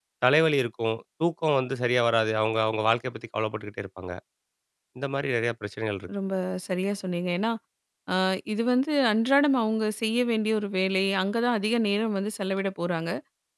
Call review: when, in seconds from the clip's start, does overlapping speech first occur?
none

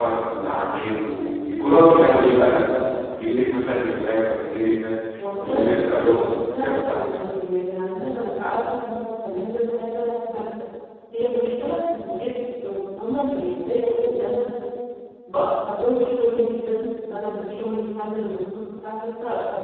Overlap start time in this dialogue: 5 s

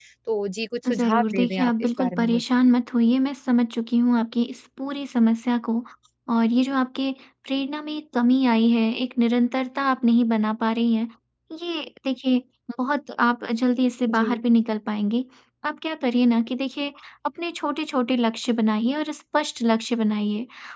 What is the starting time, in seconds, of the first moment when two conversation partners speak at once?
1 s

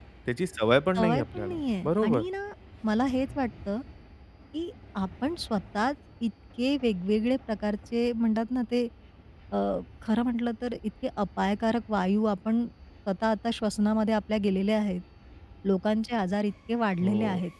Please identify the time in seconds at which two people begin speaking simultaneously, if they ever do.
1 s

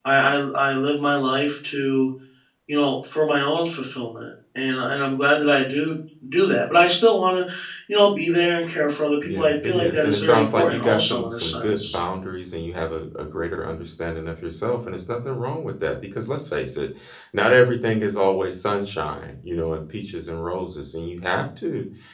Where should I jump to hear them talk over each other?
9 s

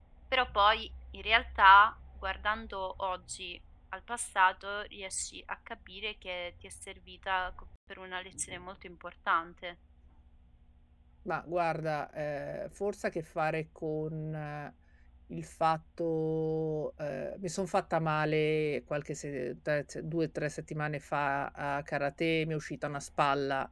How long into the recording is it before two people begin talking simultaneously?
none

